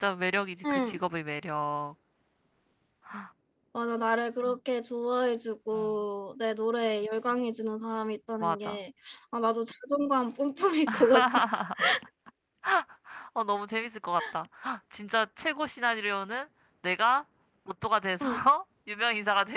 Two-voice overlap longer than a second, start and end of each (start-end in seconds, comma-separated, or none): none